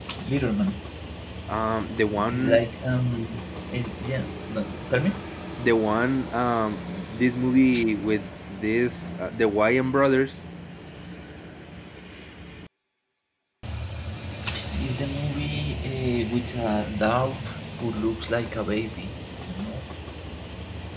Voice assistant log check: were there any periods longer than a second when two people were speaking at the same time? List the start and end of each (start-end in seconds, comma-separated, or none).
none